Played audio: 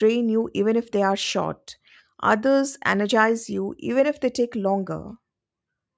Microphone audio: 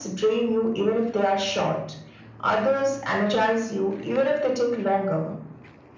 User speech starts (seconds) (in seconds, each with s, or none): none